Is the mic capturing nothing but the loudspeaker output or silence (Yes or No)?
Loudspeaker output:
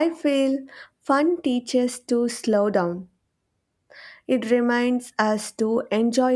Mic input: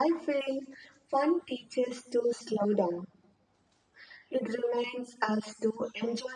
Yes